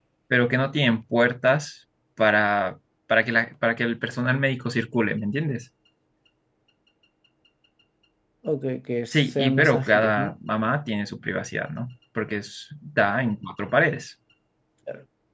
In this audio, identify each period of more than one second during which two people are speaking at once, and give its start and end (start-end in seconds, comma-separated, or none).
9.1-10.3